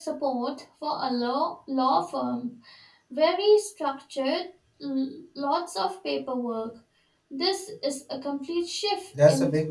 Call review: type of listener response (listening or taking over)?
taking over